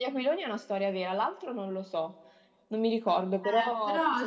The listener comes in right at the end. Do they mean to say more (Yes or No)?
Yes